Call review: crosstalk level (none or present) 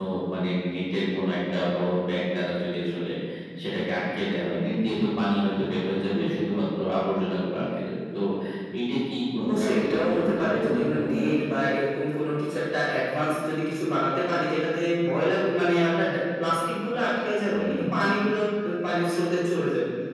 present